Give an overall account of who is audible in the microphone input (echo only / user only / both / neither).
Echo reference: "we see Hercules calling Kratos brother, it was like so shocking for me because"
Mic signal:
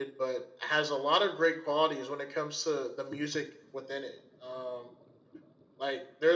user only